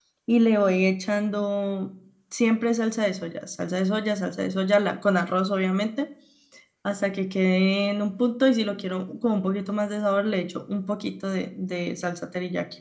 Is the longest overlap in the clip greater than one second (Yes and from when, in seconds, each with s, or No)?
No